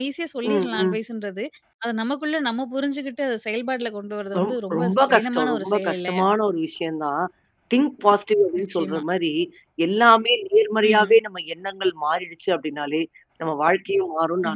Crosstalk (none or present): present